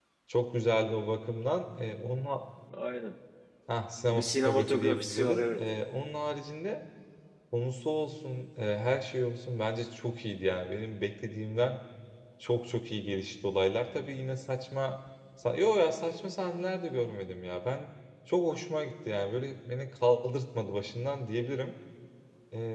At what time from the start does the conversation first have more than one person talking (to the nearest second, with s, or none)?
4 s